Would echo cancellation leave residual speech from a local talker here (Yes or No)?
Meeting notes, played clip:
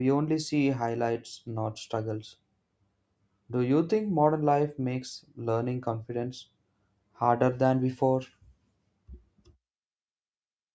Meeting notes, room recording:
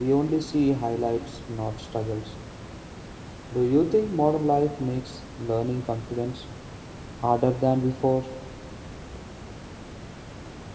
No